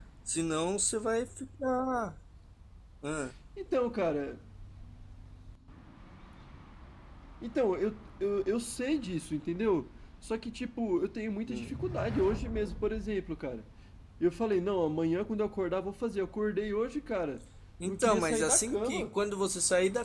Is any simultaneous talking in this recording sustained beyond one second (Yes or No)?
Yes